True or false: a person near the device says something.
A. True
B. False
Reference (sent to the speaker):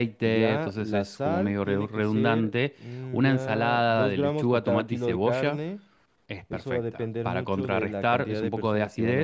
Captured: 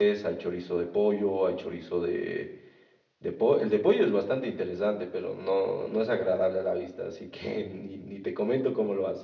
A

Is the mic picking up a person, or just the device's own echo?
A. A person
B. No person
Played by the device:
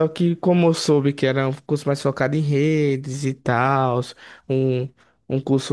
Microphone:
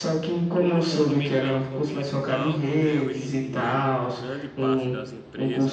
A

